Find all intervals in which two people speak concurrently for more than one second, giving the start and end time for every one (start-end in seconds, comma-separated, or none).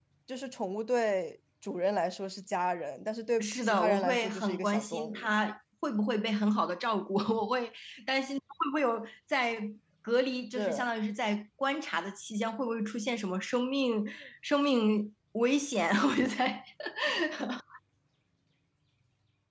3.4-5.3